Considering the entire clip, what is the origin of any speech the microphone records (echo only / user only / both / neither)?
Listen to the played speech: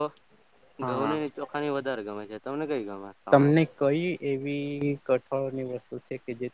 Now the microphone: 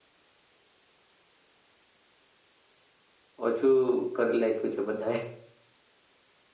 user only